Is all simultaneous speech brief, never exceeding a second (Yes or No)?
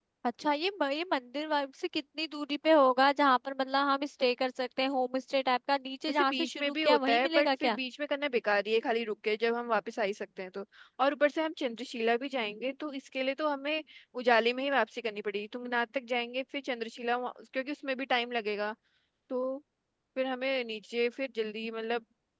No